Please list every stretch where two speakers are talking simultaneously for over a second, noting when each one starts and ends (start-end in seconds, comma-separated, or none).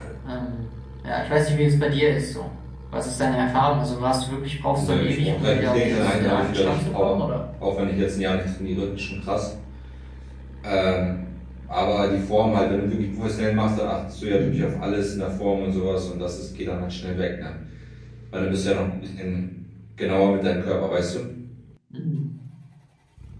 4.8-7.2